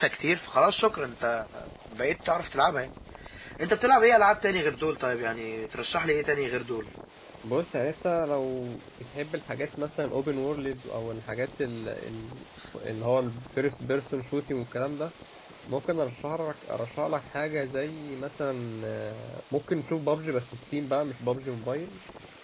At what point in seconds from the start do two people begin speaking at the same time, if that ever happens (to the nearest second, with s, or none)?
none